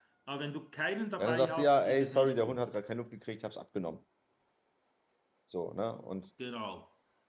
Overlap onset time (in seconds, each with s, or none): 1.2 s